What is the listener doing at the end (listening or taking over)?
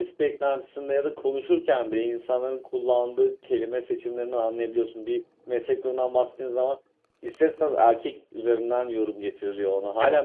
listening